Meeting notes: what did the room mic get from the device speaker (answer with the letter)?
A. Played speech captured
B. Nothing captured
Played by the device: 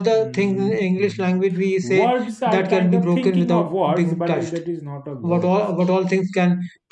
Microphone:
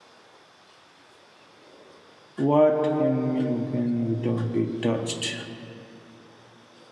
B